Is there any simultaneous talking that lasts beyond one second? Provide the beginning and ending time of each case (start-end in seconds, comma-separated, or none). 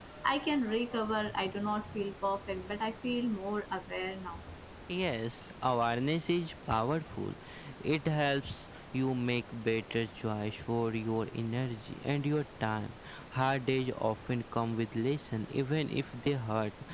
none